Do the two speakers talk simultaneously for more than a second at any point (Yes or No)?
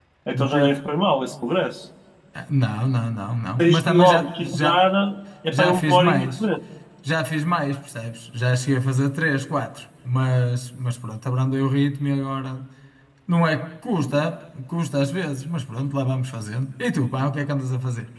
Yes